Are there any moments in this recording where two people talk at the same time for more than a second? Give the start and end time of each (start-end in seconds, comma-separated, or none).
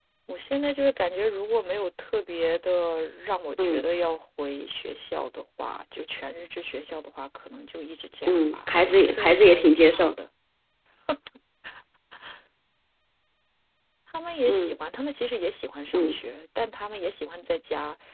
8.3-10.2